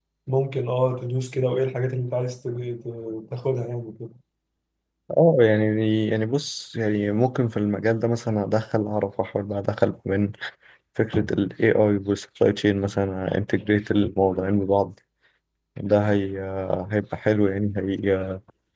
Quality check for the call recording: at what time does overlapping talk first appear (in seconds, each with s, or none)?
none